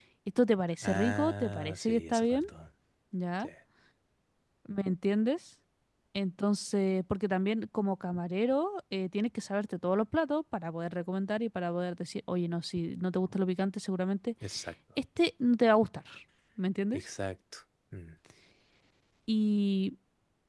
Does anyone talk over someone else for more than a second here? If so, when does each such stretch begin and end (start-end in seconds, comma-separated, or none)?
0.8-2.2